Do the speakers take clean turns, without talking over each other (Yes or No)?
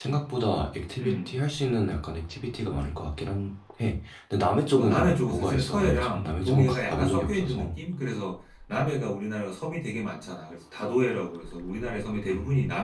No